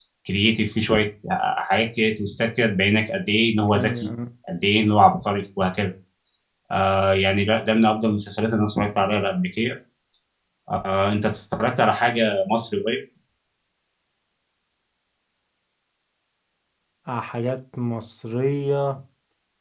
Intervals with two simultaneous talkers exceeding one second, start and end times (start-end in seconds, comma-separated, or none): none